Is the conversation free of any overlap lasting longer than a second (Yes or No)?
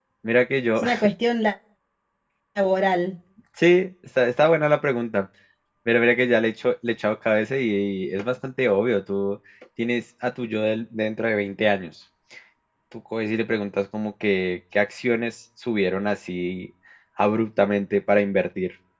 Yes